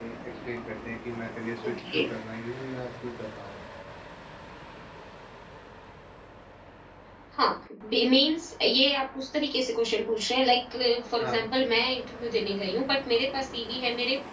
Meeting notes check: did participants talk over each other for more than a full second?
No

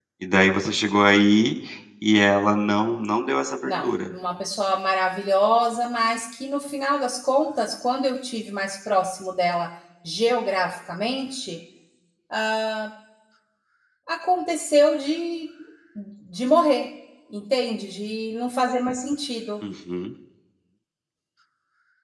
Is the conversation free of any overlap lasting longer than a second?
Yes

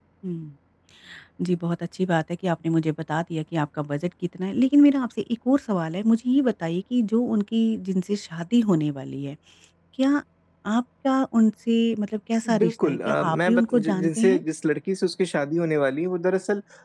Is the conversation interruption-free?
No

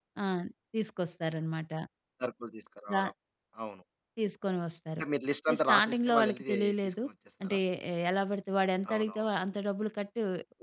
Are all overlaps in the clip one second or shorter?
No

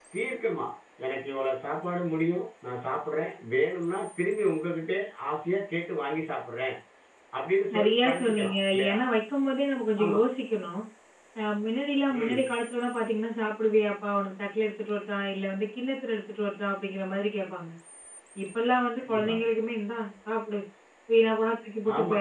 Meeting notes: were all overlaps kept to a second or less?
No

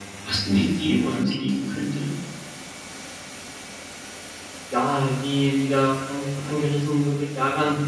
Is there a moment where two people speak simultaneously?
No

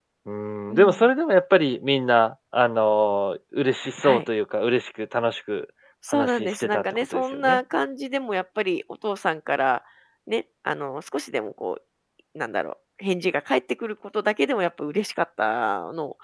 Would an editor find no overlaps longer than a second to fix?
No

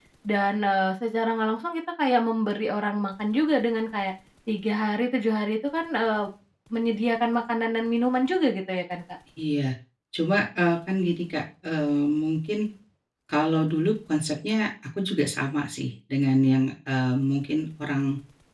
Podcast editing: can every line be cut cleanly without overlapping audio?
Yes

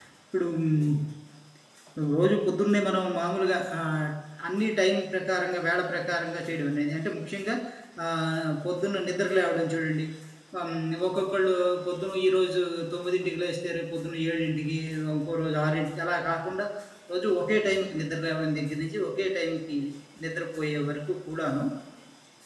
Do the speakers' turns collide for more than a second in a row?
No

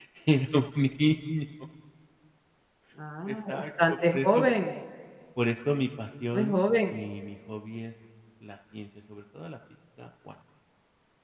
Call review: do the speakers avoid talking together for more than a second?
No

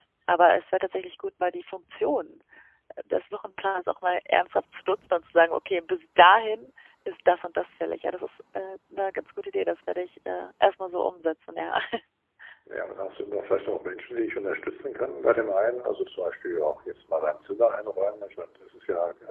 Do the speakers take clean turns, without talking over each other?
Yes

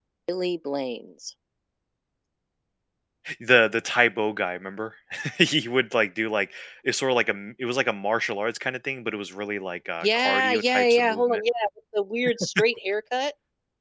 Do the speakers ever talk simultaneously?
Yes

